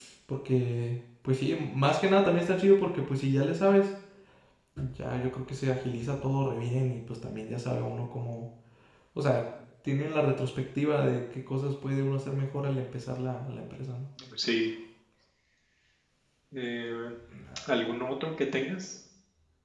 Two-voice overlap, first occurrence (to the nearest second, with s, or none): none